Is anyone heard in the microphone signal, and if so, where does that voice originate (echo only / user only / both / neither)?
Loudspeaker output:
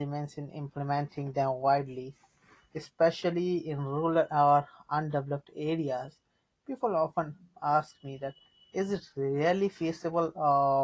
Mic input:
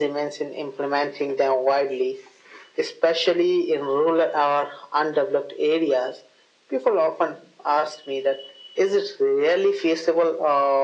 echo only